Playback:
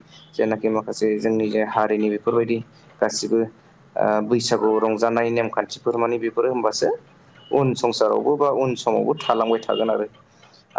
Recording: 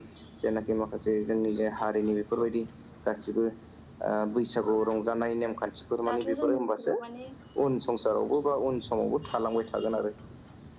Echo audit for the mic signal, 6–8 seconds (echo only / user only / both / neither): both